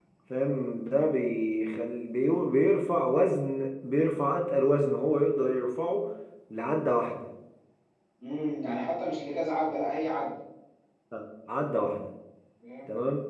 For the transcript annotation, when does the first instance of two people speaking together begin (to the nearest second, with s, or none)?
none